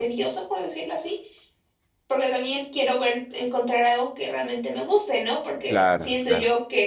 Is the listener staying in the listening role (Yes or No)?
Yes